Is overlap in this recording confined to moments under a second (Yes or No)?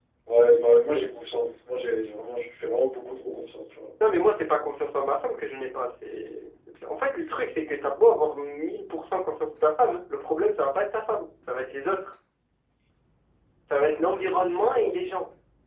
No